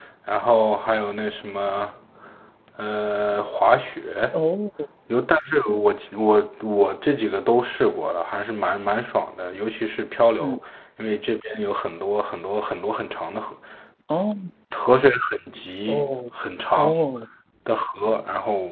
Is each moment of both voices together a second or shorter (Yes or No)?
Yes